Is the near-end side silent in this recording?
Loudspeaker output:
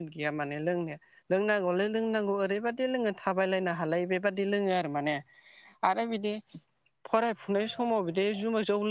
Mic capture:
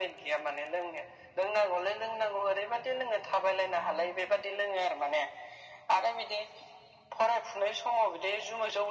Yes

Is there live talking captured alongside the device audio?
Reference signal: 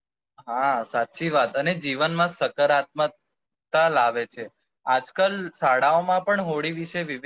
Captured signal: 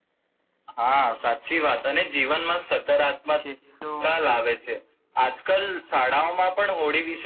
Yes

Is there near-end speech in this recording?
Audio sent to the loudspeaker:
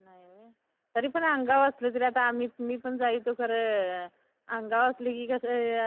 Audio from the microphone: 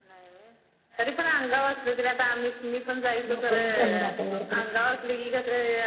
Yes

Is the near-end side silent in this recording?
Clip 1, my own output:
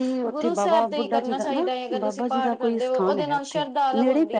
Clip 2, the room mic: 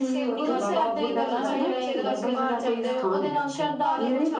No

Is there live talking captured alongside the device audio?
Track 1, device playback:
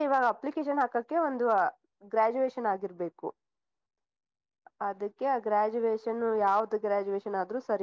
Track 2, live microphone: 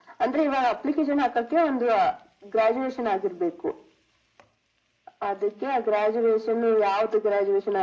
No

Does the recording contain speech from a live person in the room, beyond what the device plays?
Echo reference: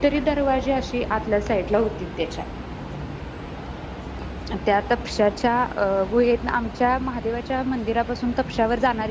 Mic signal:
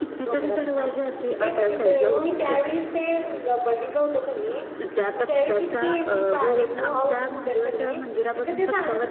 Yes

